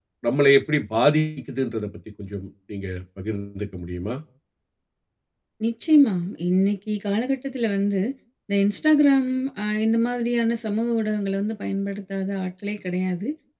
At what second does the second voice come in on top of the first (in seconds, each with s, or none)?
none